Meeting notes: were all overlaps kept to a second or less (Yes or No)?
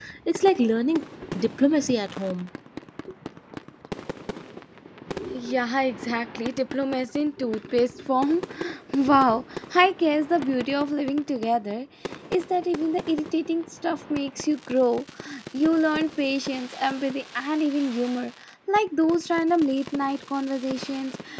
Yes